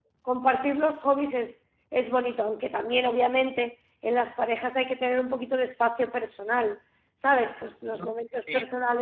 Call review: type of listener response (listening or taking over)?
listening